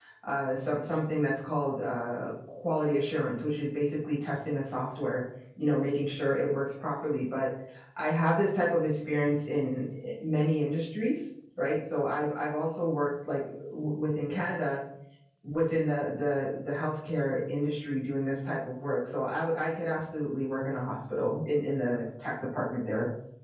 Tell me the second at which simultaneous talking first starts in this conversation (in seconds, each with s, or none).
none